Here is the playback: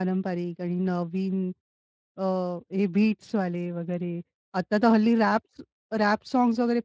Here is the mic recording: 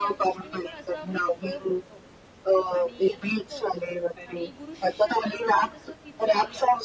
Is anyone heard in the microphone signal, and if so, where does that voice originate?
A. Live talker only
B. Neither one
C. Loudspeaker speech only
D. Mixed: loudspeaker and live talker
D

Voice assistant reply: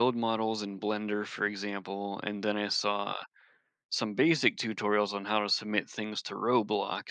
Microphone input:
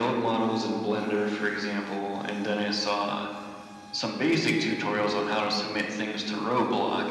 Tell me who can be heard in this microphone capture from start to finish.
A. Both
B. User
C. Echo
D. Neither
C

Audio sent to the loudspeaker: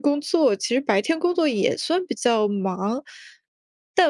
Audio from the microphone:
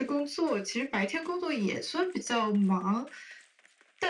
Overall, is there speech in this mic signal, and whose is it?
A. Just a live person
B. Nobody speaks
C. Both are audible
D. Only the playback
D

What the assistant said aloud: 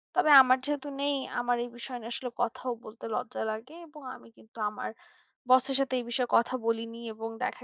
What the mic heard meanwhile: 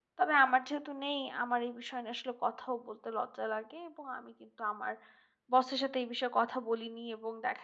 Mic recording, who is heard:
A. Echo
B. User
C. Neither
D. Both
A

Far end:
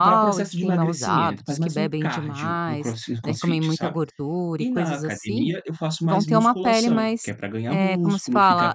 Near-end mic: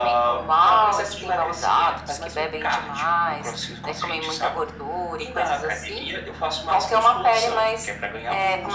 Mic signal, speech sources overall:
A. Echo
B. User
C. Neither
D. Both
A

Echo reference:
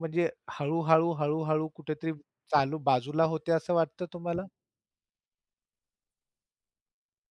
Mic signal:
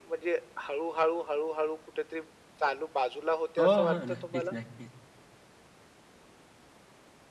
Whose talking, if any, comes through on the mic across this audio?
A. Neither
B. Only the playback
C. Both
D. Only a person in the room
C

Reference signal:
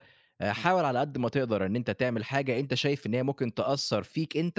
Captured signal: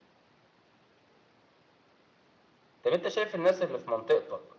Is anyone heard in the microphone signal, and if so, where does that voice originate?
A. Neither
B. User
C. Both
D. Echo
B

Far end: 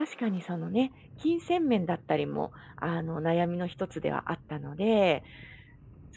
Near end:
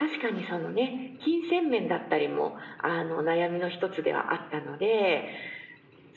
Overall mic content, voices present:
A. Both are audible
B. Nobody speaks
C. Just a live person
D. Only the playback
D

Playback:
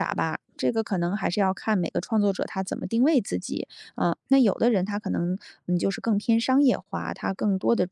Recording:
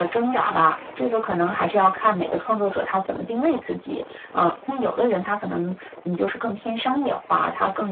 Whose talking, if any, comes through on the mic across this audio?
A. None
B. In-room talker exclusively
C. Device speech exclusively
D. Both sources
C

